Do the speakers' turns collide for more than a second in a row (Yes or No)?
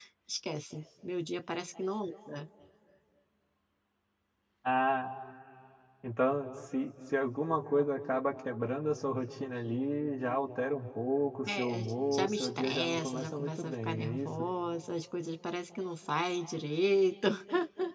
Yes